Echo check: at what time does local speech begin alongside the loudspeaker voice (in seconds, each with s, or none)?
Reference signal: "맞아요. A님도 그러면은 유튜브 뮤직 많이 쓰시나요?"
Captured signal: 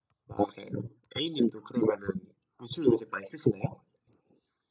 none